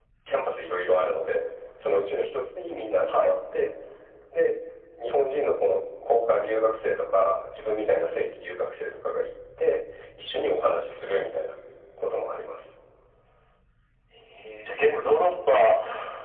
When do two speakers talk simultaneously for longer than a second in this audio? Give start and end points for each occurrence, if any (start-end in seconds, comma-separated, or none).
none